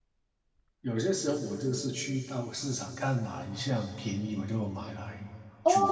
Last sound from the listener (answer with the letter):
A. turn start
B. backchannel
A